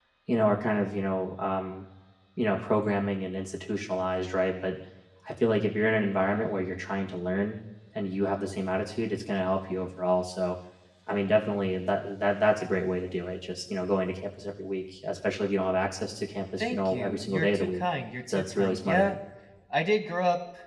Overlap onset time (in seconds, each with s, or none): 16.6 s